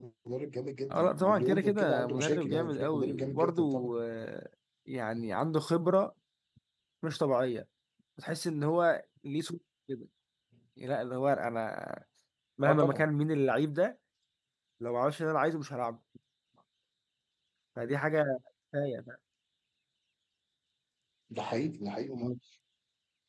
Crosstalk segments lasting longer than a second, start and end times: 0.9-3.6

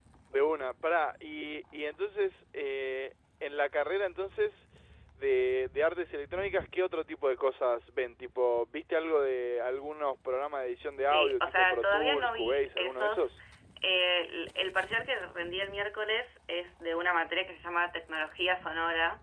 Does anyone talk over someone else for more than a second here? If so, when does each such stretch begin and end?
11.1-13.3

